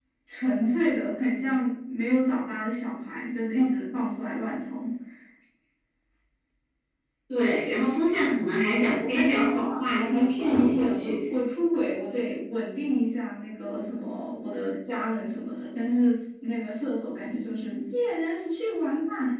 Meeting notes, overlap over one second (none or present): present